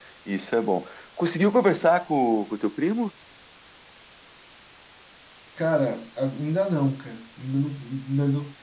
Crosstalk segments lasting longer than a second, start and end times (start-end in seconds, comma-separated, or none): none